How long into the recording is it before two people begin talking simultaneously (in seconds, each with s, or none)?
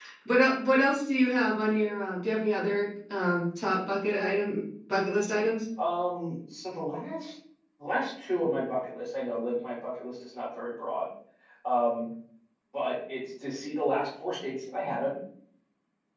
none